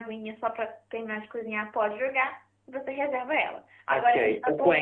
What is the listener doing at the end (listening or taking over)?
taking over